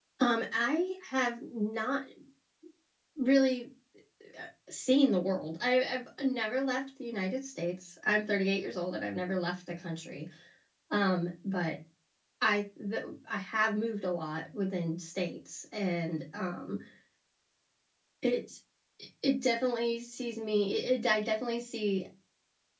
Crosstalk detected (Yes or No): No